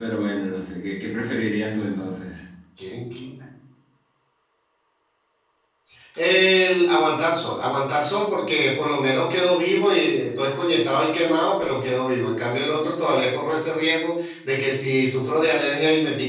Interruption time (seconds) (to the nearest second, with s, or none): none